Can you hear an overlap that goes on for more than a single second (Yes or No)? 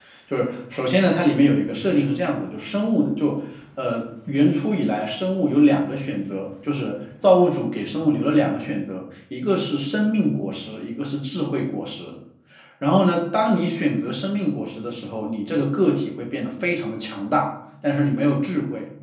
No